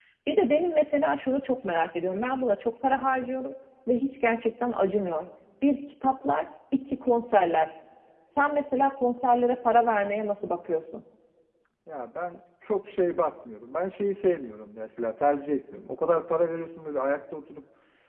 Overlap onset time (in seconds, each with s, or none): none